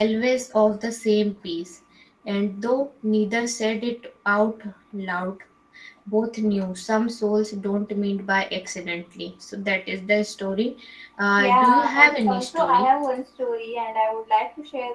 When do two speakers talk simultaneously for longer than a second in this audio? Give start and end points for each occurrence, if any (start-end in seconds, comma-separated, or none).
11.4-12.9